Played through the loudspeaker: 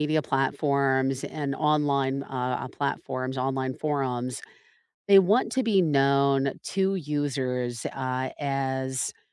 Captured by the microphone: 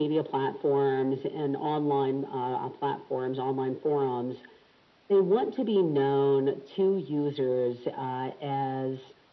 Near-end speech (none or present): none